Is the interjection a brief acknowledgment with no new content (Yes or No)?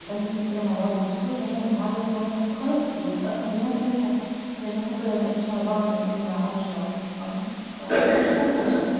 No